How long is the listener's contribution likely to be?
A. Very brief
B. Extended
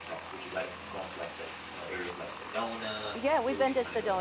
B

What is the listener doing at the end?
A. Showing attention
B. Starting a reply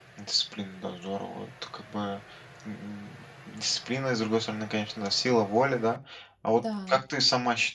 A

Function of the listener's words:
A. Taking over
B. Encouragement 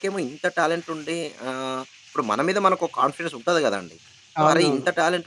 B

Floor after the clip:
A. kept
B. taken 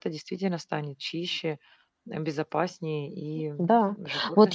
B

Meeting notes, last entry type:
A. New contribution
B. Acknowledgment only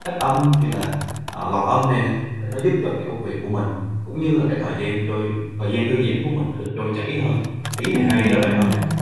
A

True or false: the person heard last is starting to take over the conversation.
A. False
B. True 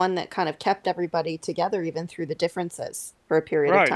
B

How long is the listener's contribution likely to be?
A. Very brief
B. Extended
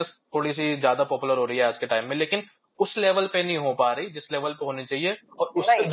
B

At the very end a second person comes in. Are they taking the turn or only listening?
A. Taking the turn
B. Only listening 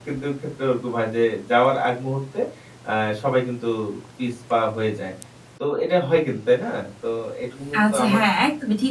A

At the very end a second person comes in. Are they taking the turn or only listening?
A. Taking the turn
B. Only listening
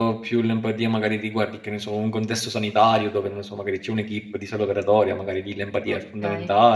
A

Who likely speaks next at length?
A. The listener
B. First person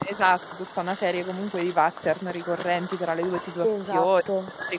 B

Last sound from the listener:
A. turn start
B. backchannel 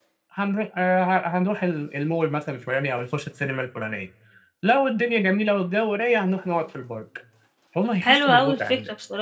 A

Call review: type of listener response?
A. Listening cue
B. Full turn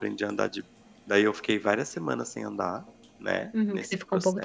B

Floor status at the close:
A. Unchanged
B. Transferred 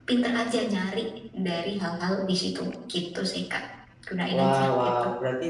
B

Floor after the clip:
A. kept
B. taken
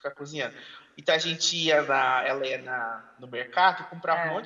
A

